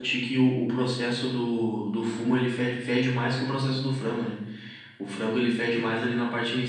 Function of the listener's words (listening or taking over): listening